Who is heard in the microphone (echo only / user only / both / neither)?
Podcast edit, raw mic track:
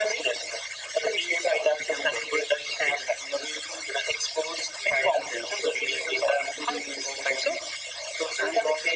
echo only